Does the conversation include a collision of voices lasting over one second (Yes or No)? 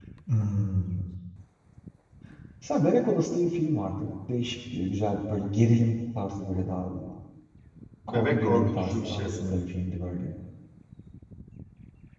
Yes